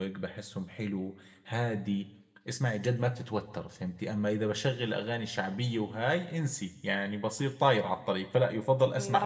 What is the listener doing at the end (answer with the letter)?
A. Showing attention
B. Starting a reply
B